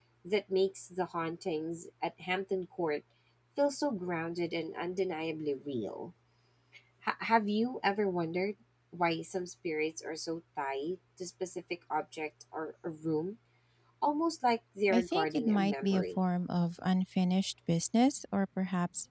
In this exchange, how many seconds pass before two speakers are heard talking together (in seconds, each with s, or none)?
14.9 s